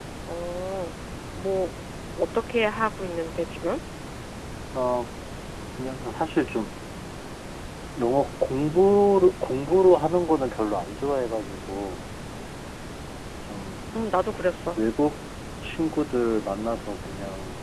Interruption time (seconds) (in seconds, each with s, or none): none